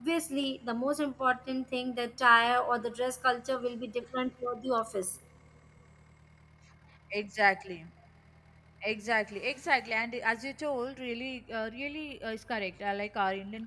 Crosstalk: none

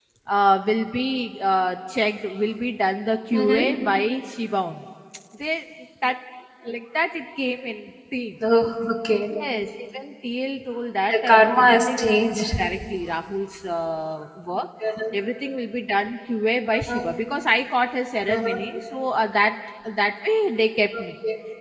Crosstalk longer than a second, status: present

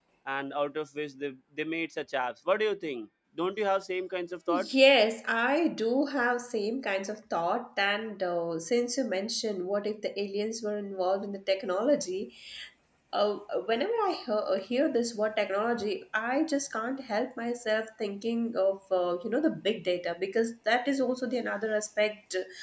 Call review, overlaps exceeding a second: none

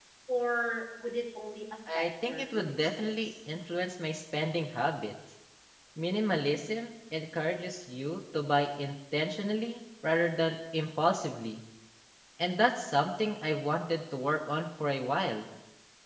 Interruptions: present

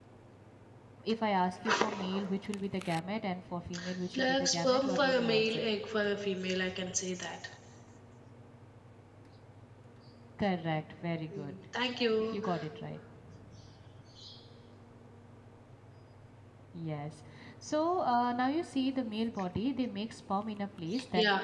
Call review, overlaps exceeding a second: present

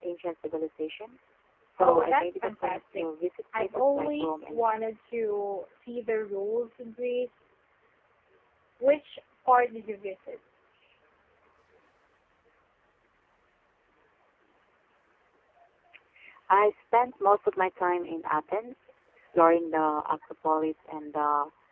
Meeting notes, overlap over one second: present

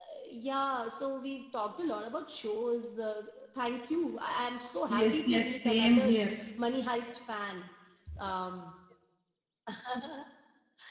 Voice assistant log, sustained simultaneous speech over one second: present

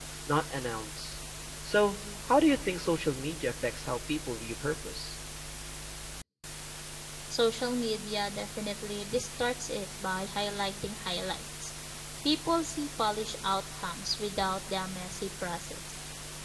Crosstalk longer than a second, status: none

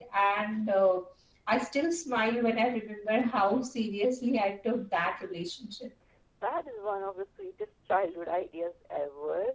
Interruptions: none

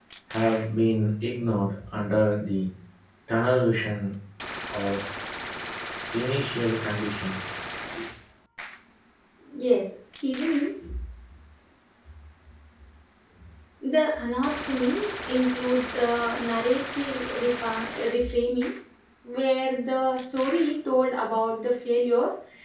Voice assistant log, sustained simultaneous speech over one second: none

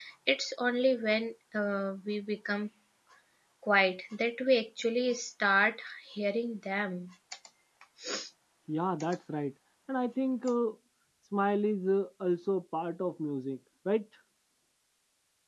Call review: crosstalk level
none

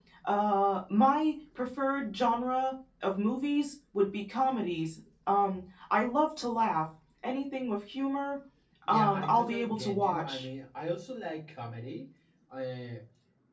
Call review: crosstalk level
present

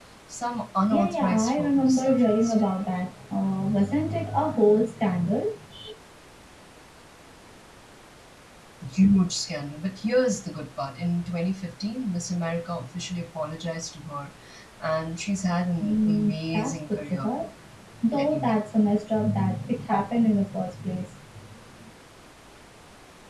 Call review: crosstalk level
present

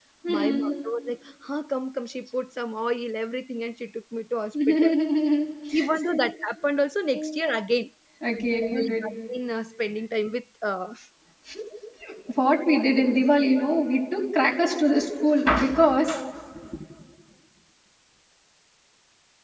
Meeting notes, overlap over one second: none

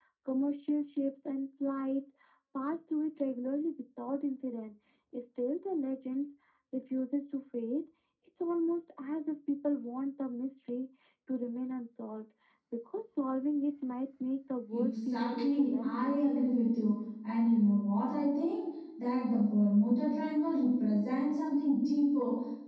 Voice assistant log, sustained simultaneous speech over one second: present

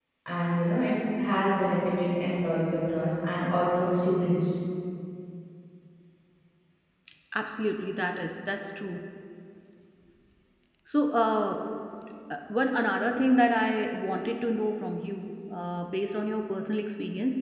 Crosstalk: none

